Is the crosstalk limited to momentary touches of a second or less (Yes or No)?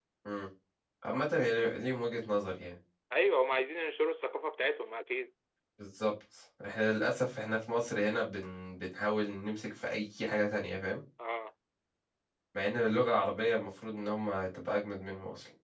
Yes